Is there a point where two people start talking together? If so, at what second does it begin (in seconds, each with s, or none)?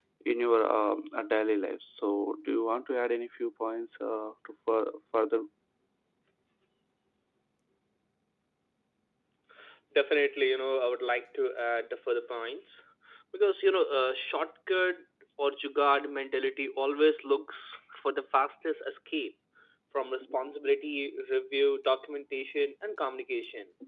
none